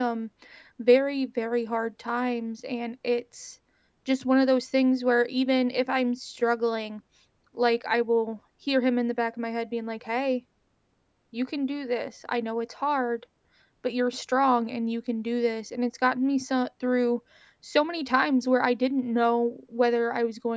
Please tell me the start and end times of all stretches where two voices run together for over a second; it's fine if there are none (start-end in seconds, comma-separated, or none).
none